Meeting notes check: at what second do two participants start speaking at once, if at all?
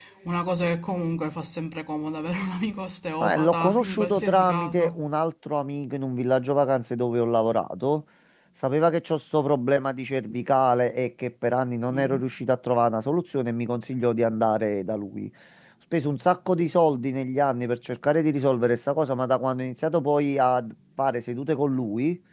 3.2 s

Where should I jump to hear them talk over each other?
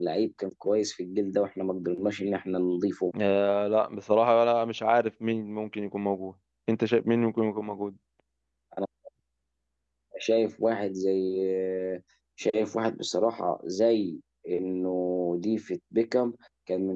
none

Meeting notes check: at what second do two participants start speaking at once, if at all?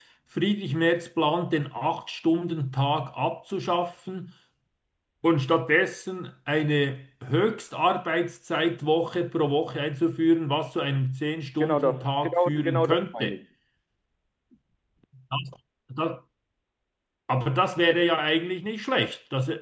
11.6 s

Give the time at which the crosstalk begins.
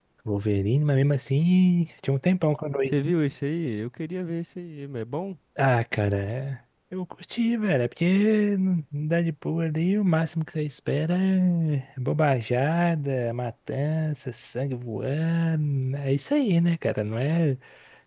none

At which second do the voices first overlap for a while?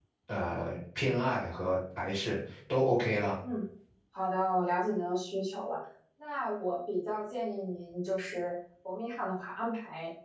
none

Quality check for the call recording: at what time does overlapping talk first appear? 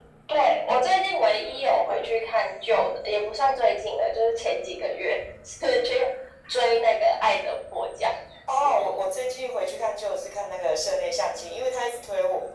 none

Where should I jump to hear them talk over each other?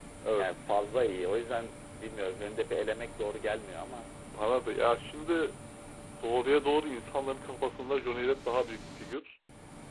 none

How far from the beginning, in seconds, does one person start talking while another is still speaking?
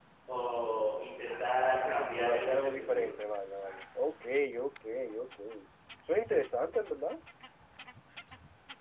1.7 s

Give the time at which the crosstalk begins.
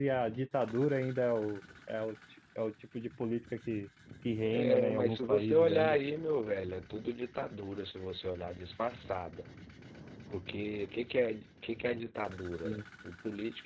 4.4 s

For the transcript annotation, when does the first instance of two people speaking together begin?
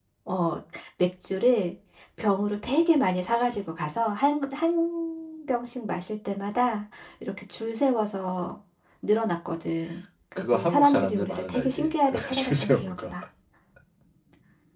10.4 s

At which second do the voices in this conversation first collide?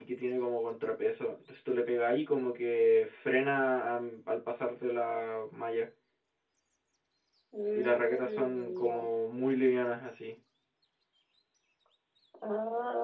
7.8 s

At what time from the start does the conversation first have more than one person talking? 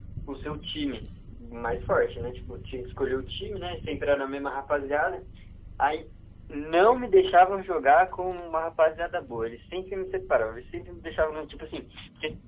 none

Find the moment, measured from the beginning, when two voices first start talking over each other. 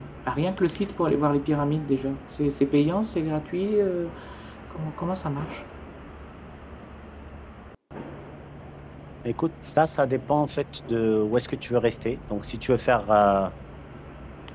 none

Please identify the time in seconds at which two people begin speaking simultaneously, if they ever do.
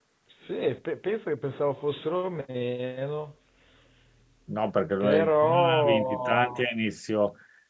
5.0 s

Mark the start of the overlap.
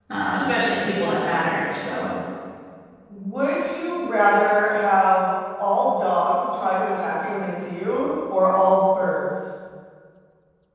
none

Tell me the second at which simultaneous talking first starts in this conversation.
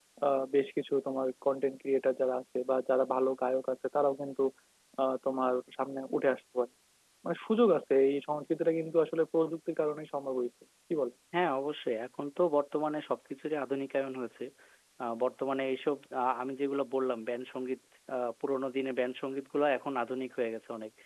none

